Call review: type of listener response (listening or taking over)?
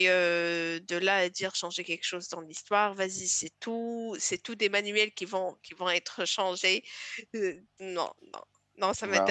taking over